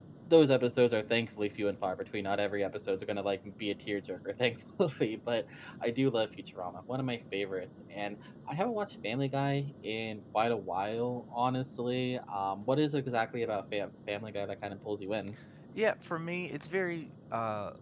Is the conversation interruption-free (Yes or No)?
Yes